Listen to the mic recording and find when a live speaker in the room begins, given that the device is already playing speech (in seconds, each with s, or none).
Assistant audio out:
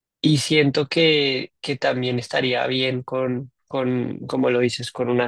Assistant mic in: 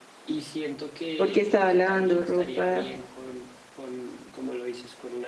1.1 s